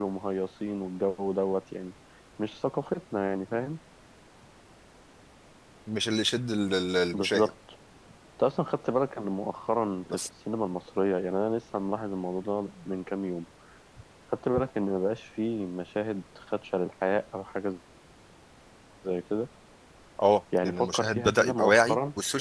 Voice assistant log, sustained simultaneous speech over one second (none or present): present